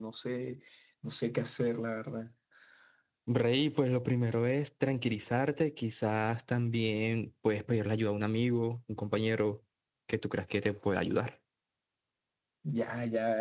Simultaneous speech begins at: none

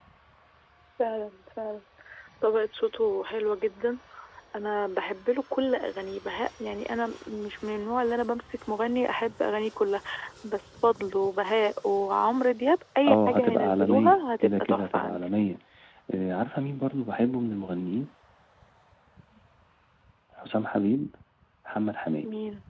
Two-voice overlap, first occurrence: 13.1 s

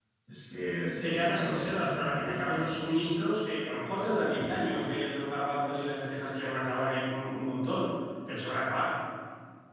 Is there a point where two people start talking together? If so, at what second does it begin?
1.0 s

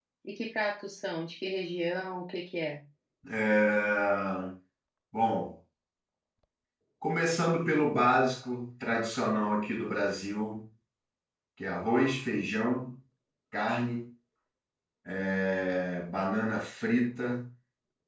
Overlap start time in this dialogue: none

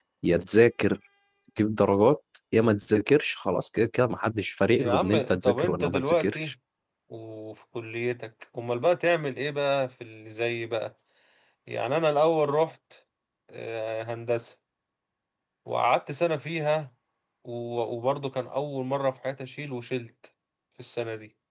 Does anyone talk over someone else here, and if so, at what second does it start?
4.8 s

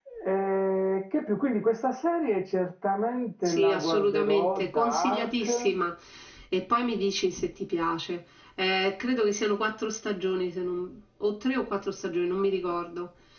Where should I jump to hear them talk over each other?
3.5 s

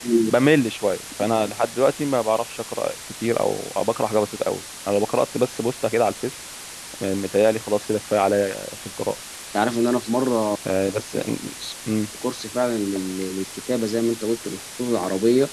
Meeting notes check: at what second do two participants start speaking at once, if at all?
none

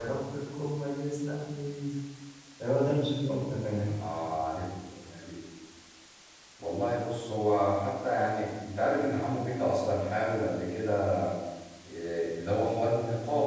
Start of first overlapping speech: none

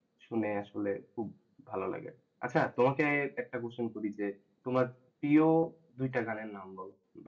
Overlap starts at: none

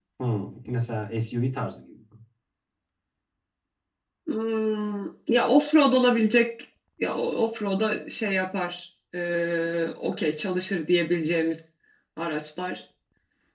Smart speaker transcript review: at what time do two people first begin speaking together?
none

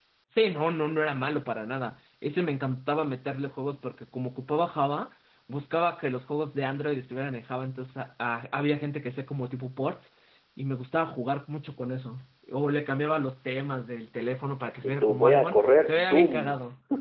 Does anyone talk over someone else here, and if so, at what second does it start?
14.8 s

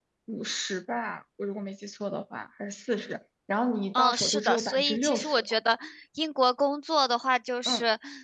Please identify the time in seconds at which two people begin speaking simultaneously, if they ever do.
3.9 s

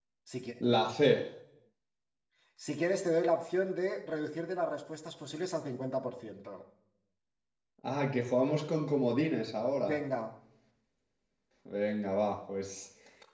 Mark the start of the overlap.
none

